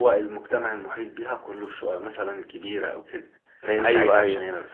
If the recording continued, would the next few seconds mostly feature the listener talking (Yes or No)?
No